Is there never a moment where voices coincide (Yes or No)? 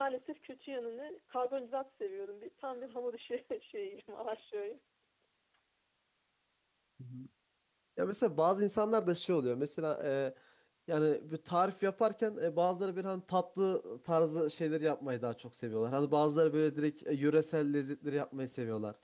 Yes